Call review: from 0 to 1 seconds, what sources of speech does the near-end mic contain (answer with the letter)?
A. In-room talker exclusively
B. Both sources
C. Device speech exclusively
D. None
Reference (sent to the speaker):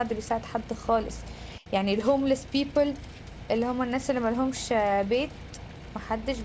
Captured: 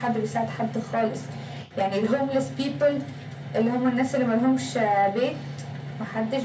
C